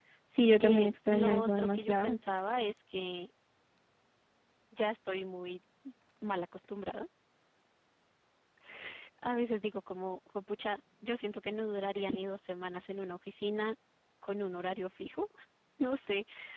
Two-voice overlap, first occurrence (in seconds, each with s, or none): 0.6 s